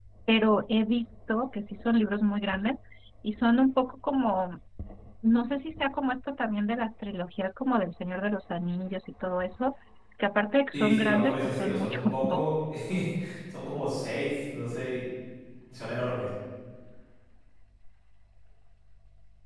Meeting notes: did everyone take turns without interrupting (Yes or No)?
No